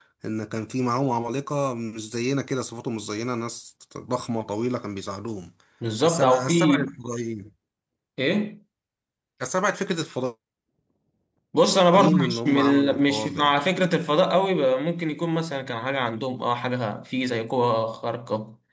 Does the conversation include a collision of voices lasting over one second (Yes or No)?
Yes